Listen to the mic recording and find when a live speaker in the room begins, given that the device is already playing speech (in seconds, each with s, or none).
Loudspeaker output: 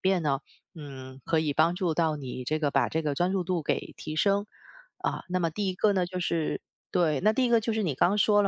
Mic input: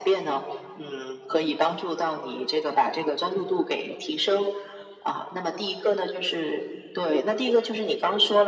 none